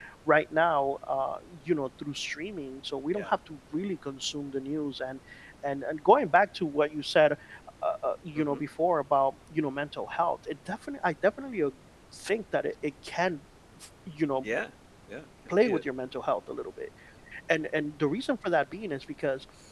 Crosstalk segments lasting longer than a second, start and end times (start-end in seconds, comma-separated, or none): none